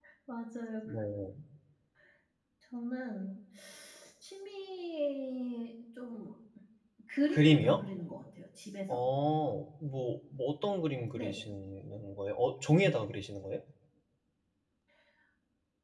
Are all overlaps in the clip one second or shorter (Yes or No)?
Yes